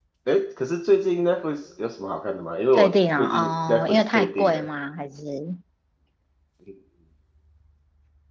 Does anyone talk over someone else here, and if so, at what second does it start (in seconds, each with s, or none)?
2.7 s